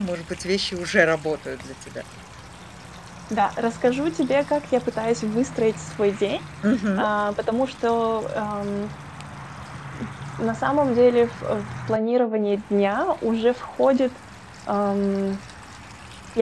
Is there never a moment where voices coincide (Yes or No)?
Yes